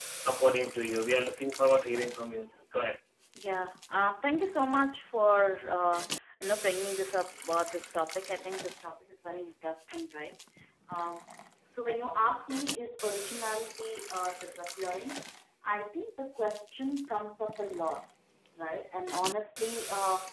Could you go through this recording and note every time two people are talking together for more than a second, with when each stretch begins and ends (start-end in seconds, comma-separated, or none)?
none